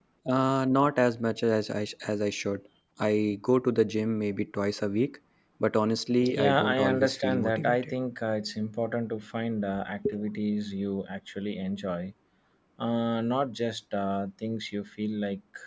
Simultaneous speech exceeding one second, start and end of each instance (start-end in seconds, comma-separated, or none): 6.4-7.9